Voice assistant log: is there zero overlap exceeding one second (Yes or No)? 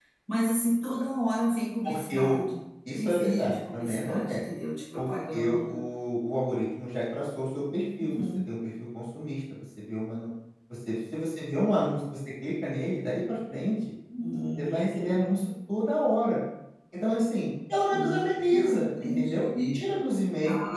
No